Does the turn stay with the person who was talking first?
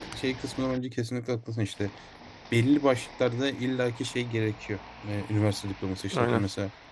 Yes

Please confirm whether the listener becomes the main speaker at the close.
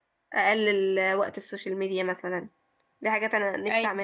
No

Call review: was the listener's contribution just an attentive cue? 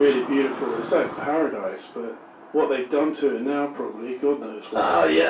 No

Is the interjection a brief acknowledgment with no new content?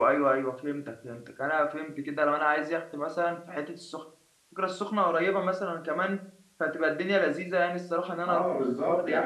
No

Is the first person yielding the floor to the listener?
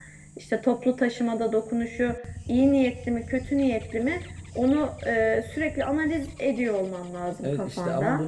Yes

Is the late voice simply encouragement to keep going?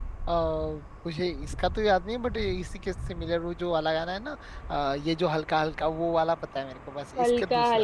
No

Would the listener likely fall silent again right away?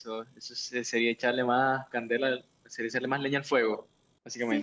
No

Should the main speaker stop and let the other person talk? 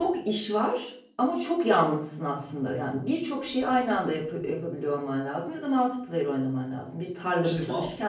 Yes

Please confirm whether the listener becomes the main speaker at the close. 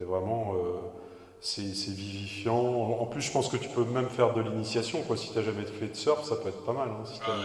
Yes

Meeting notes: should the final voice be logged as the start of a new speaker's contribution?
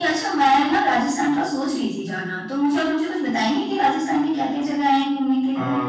Yes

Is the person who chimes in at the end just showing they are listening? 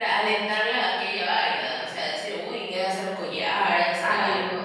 No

